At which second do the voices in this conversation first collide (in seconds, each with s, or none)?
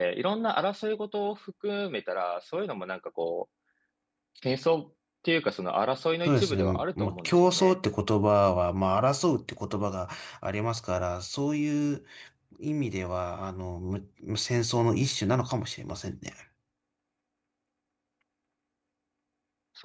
6.2 s